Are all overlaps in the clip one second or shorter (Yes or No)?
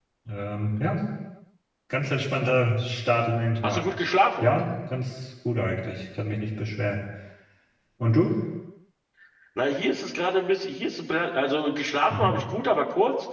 Yes